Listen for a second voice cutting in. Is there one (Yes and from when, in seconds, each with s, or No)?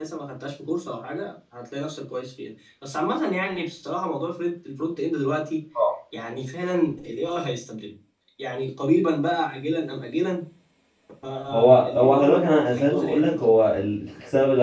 Yes, from 11.5 s